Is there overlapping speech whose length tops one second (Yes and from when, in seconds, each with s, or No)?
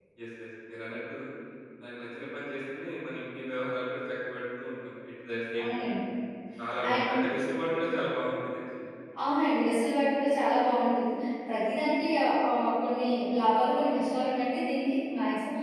No